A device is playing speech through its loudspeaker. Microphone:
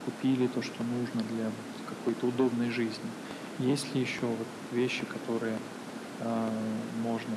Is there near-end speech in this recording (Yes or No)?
No